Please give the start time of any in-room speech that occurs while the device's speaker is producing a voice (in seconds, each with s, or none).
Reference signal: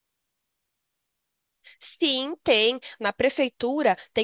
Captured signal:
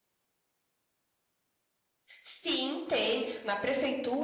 none